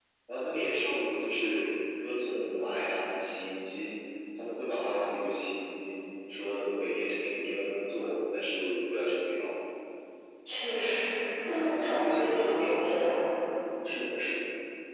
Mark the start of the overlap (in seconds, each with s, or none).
11.5 s